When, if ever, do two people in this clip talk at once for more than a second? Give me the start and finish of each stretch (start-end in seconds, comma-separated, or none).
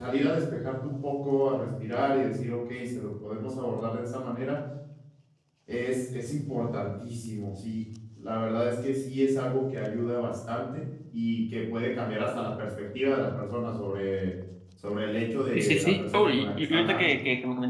15.5-17.1